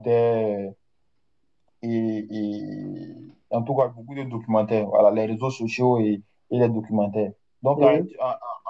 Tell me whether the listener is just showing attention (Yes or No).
Yes